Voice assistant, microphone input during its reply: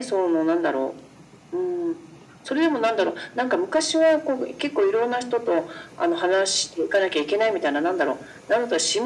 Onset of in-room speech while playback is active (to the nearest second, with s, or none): none